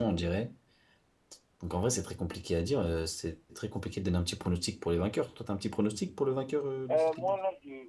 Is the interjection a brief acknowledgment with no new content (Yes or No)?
No